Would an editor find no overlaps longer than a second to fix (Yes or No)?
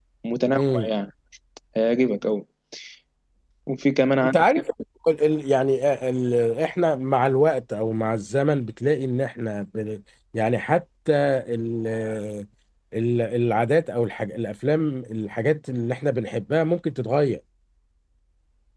Yes